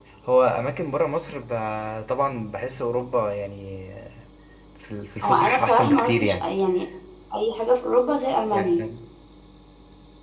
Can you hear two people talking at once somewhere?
Yes, from 5.2 s

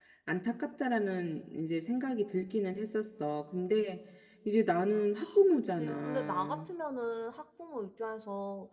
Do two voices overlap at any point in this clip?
Yes, from 5.2 s

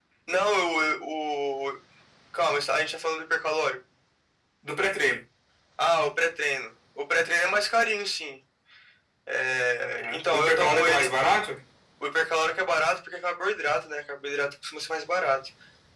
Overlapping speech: Yes, from 9.8 s

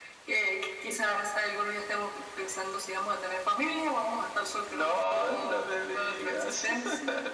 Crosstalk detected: Yes, from 4.7 s

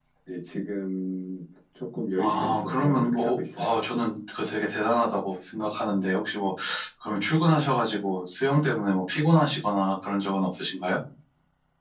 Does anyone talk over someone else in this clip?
Yes, from 2.2 s

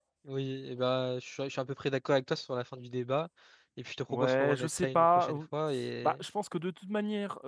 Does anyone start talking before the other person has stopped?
Yes, from 4.1 s

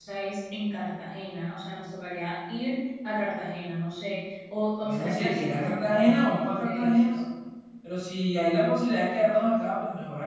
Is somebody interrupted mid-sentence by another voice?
Yes, from 4.8 s

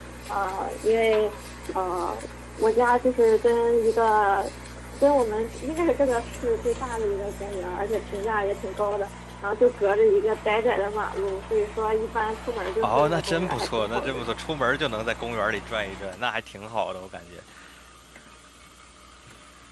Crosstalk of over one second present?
Yes, from 12.8 s

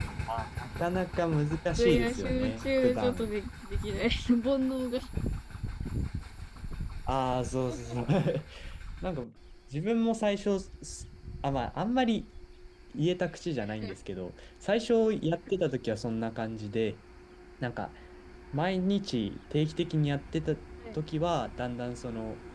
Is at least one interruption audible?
Yes, from 1.8 s

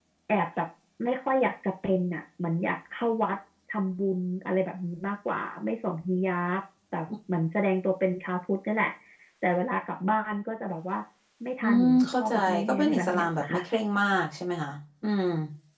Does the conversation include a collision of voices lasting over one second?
Yes, from 11.6 s

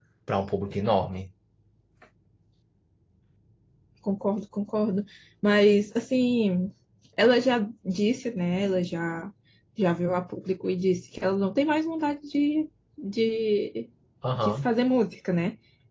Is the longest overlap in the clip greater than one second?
No

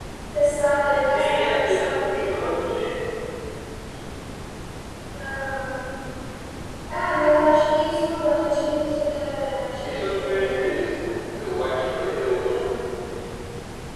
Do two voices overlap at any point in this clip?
Yes, from 1.0 s

